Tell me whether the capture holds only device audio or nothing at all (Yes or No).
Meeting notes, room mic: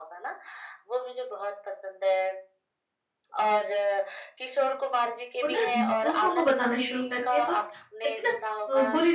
No